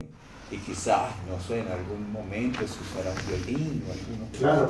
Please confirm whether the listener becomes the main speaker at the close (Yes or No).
Yes